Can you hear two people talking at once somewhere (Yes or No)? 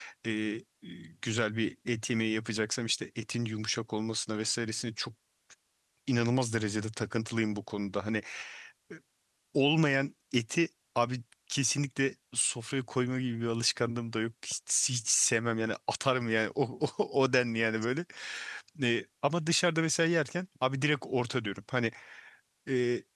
No